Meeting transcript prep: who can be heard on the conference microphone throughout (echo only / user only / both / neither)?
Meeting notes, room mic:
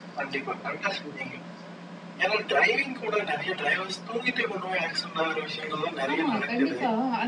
both